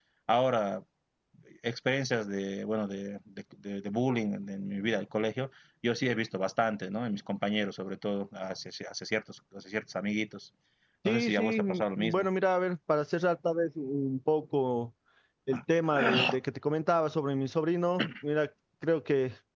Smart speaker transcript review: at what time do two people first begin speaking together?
11 s

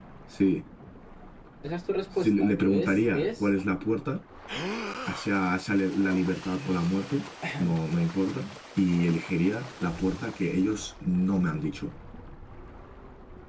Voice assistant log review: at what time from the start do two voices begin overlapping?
2 s

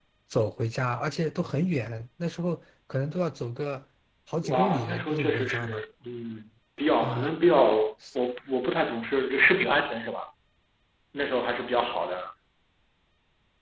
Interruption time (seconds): 4 s

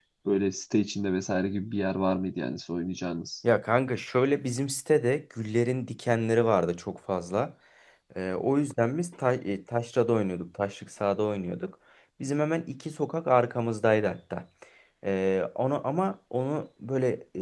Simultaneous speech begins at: none

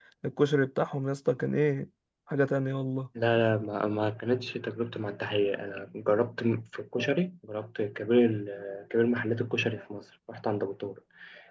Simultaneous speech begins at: none

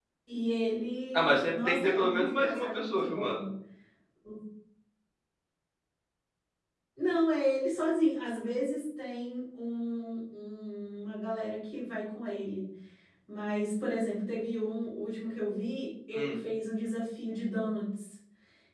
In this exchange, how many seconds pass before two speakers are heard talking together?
1 s

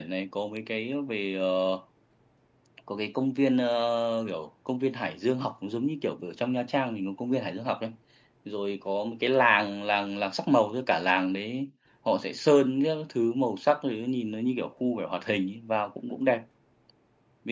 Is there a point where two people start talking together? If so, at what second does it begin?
none

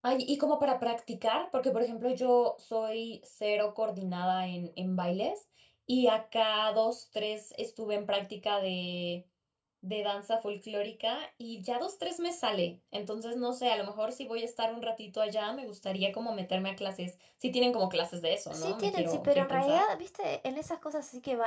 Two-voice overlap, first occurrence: 19 s

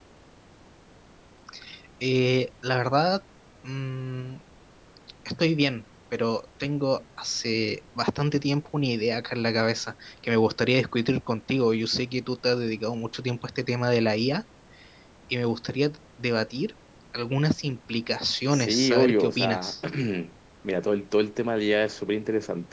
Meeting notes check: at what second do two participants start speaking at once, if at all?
19 s

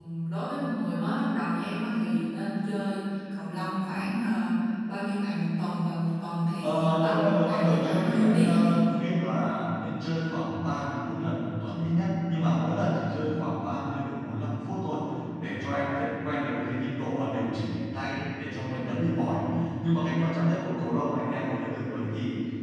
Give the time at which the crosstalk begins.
7 s

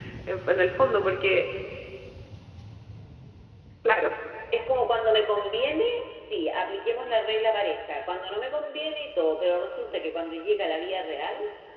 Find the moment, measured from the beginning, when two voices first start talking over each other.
none

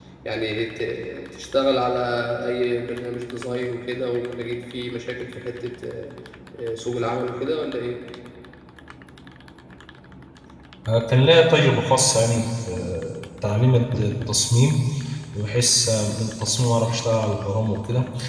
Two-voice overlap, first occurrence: none

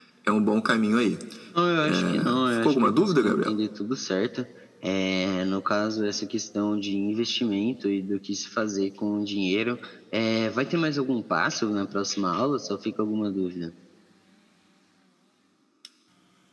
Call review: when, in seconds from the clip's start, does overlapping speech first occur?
2 s

